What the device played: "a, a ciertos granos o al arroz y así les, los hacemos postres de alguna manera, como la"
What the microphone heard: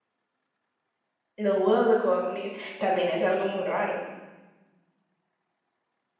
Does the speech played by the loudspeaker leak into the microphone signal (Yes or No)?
No